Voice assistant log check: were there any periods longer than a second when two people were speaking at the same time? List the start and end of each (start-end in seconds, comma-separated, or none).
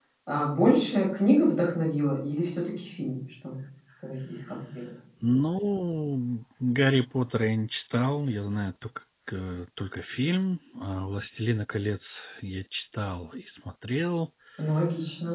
none